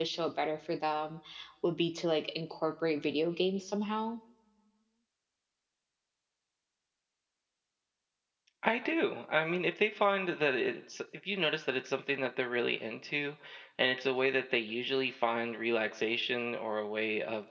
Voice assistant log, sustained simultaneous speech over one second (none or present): none